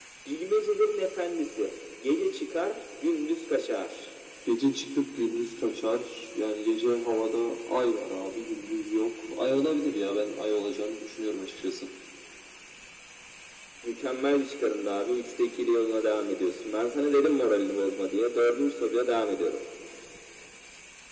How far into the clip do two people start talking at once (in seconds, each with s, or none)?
none